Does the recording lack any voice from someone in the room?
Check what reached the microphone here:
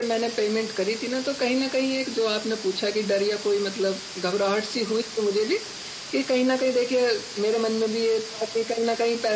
Yes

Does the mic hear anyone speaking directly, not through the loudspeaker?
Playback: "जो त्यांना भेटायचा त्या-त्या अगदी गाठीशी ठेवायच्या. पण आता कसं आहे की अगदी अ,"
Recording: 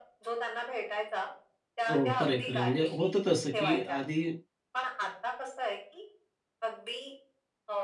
Yes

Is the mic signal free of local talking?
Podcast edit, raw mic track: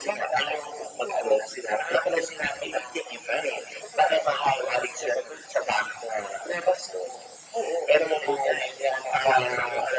Yes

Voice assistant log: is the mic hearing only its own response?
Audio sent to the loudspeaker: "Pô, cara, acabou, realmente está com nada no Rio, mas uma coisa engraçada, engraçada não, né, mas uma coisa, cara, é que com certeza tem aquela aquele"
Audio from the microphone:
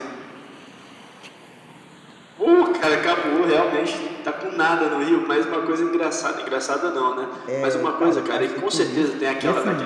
No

